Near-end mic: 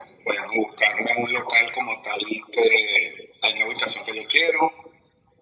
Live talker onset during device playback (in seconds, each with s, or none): none